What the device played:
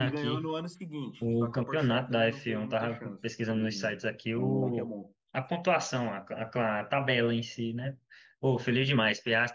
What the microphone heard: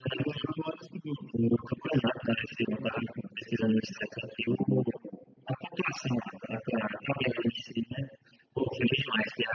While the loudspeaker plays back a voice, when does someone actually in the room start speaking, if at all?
none

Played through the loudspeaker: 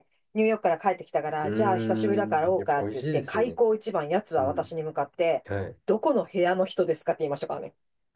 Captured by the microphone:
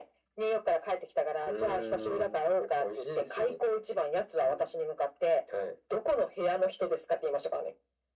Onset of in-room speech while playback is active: none

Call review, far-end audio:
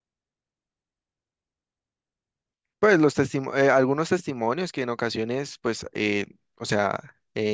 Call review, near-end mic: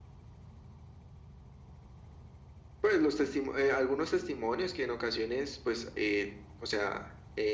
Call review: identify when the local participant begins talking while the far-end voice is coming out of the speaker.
none

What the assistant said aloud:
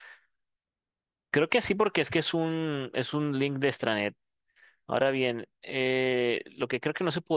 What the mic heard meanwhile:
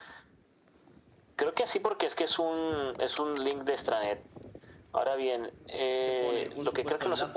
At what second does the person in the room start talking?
6.0 s

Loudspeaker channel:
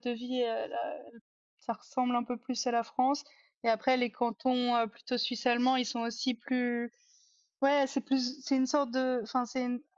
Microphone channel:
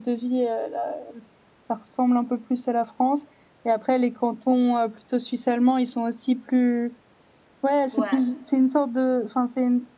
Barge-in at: 7.9 s

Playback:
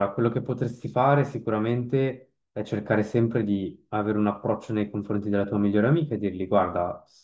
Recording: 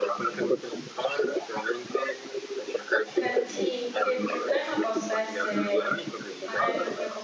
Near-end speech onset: 3.1 s

